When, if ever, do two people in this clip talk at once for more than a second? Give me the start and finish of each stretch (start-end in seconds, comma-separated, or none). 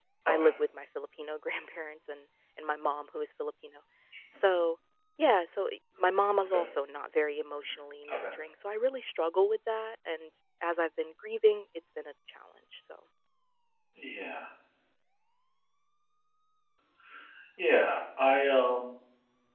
none